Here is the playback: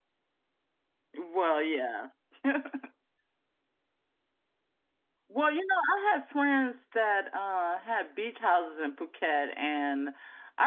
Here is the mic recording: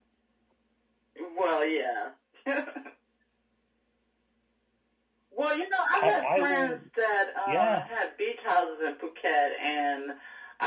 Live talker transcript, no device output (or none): I, I will. Yeah,